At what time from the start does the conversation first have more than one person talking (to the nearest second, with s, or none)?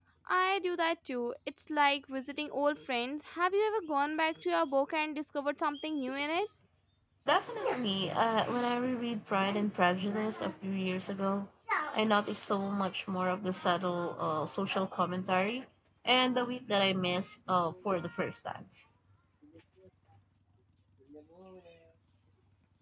none